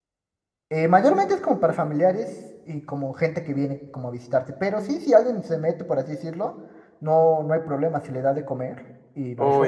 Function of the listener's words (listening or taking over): taking over